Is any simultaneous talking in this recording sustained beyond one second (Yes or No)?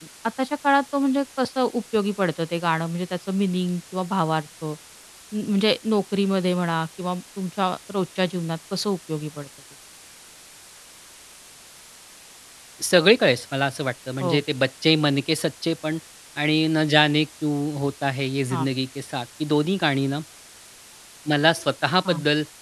No